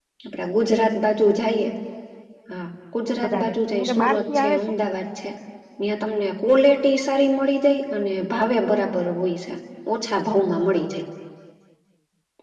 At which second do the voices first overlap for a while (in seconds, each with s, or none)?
3.0 s